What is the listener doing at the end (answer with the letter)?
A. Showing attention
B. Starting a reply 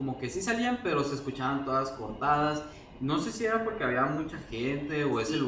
B